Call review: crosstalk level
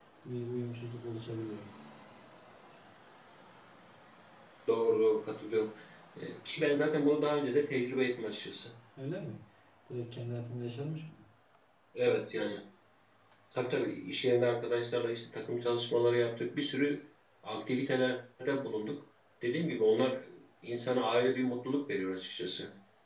none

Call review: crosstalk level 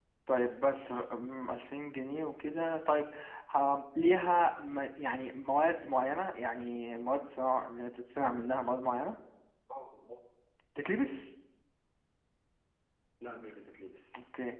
none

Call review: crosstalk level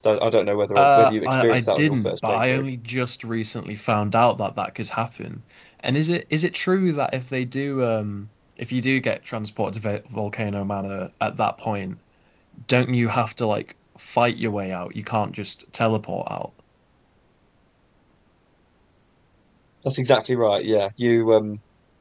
present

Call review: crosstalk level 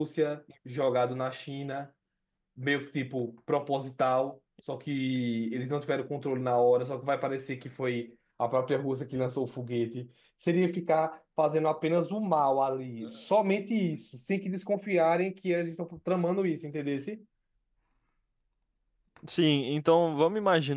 none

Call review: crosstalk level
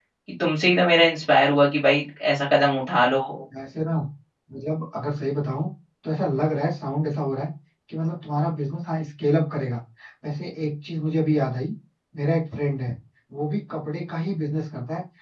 none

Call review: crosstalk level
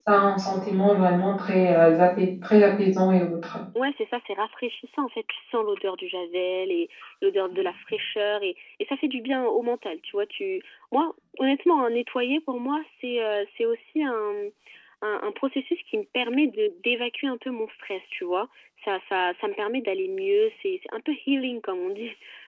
none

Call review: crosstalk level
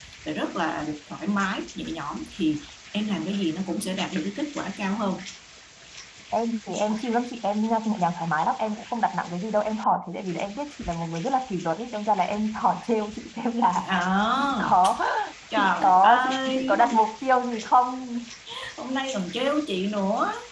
present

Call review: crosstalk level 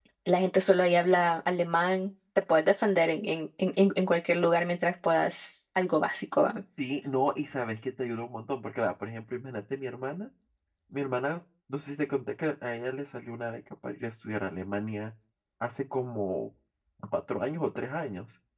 none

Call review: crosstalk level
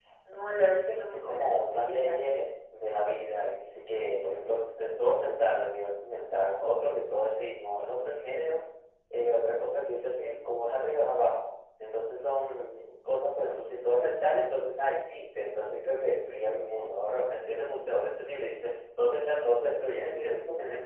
present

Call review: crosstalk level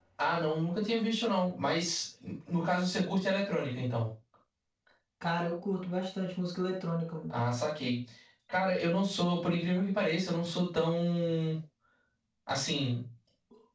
none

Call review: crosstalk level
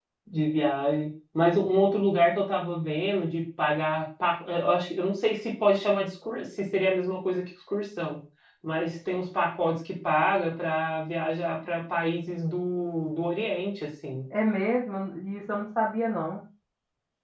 none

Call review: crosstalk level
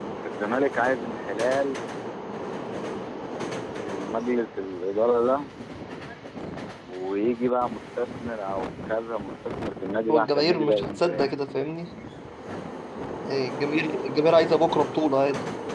present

